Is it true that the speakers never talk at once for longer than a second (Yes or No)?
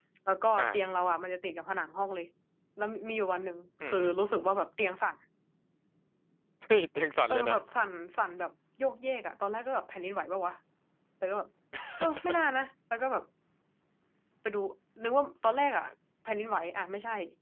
Yes